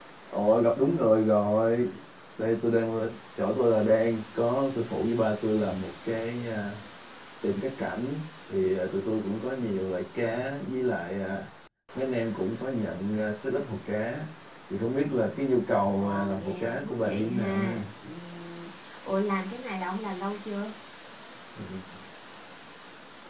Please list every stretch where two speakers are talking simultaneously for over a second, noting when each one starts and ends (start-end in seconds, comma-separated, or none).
16.0-17.8